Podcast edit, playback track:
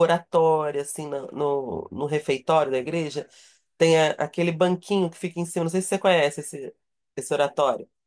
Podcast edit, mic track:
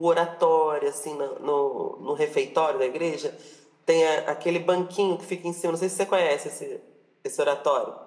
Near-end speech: none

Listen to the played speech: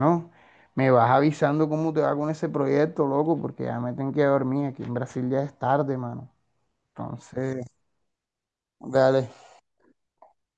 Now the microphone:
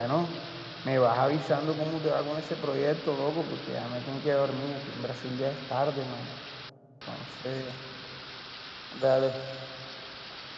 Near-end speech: none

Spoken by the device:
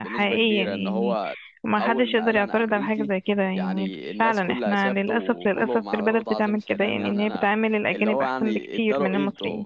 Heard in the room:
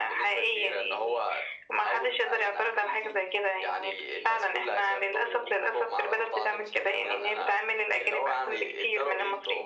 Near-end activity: none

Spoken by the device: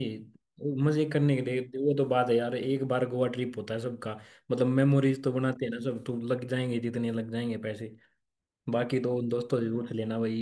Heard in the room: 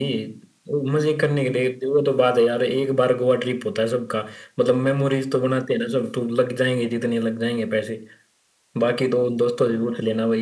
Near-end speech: none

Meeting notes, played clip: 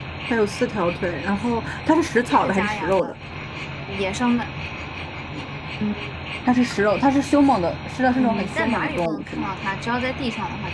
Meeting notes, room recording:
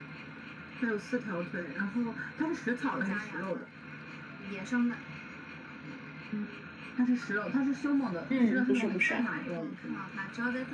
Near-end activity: present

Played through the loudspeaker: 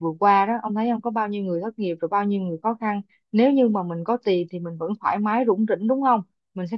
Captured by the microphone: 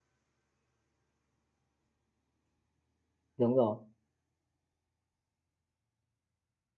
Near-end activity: present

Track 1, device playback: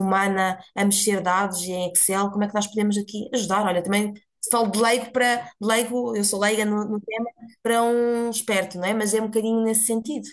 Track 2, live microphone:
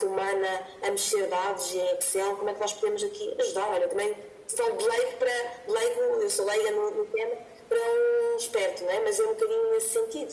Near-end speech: none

